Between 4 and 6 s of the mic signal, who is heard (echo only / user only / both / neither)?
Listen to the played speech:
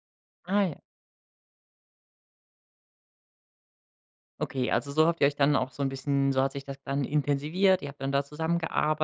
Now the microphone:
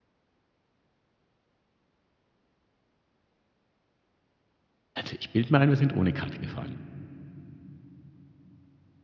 user only